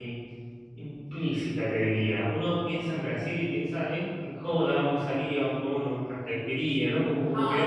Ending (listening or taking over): taking over